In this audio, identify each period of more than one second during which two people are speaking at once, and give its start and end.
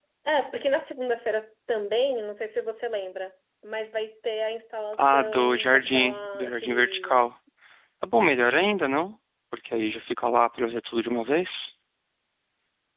5.0-7.2

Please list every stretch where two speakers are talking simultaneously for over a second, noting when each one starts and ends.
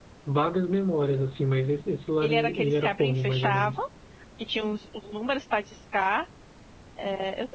2.2-3.7

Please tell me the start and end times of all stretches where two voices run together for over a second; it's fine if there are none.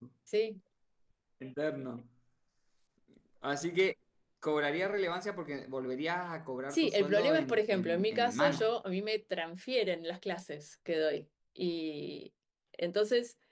6.7-8.7

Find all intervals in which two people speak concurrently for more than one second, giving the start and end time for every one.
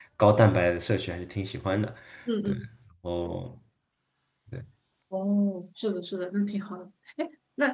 none

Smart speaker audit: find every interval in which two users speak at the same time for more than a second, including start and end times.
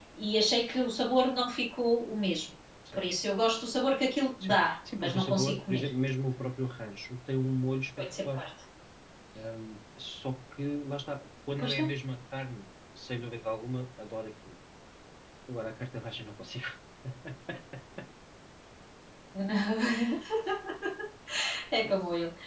4.4-5.9

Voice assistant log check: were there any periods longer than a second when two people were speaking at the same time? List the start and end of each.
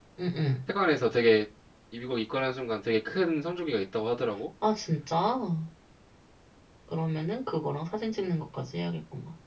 none

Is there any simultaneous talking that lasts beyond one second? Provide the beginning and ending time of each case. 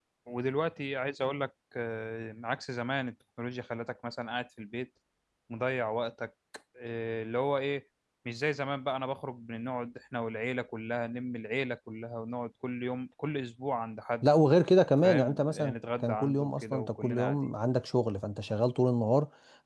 15.0-17.4

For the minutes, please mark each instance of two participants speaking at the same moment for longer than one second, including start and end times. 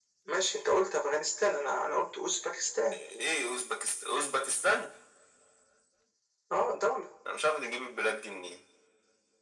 none

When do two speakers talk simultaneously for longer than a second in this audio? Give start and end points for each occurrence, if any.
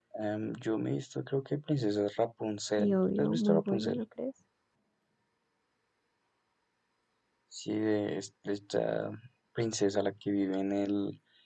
2.8-4.0

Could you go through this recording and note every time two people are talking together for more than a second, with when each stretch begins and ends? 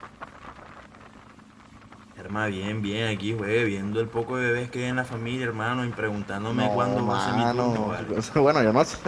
6.5-8.1

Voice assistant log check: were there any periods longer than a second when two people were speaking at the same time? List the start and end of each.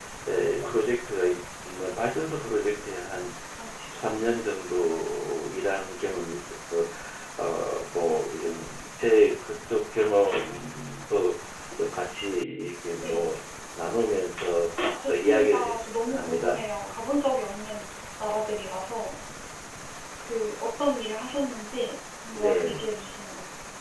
15.1-16.6

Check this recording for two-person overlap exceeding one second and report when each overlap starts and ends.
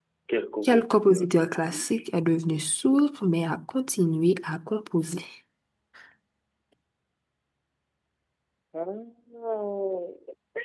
0.6-1.9

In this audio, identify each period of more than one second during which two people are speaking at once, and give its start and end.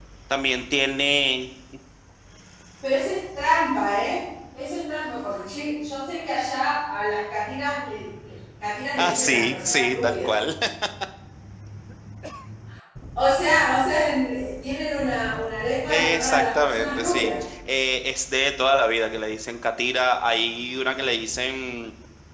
9.0-10.4, 15.9-17.3

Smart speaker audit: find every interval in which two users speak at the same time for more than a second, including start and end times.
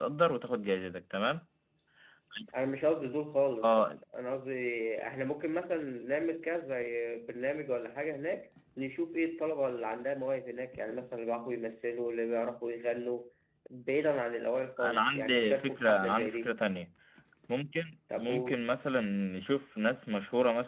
14.8-16.6

